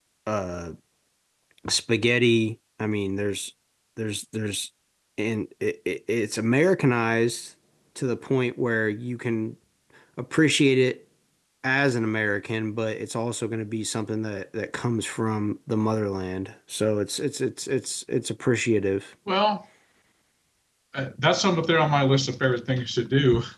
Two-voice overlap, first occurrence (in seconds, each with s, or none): none